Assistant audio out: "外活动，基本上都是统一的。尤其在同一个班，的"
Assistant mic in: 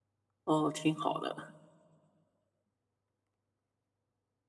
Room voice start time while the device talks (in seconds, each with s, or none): 0.5 s